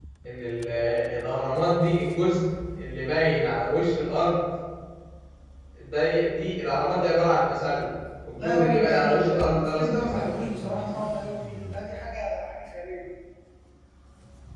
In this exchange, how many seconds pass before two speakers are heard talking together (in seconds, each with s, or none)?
8.4 s